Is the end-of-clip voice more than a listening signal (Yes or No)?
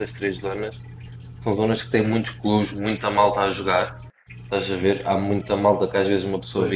No